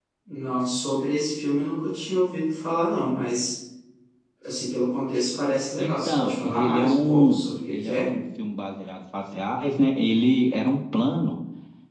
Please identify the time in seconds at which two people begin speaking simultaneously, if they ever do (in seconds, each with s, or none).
5.8 s